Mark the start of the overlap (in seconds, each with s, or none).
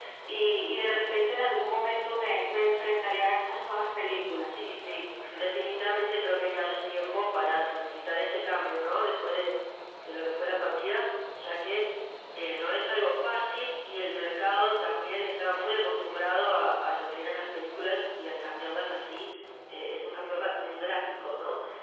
none